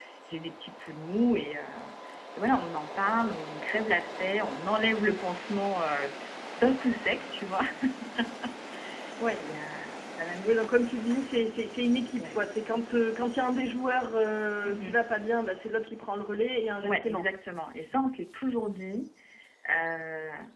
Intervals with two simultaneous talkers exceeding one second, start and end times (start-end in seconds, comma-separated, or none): none